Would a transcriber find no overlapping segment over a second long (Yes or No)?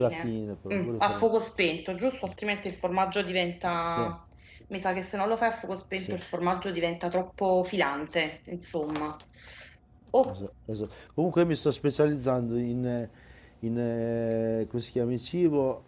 Yes